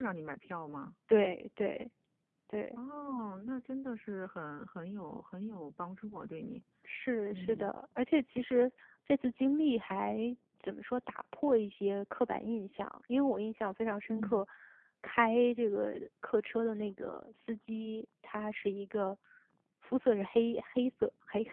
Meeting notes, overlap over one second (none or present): none